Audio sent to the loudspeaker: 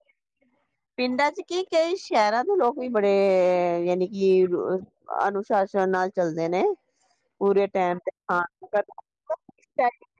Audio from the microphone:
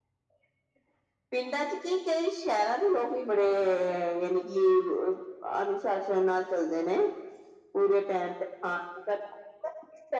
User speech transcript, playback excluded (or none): none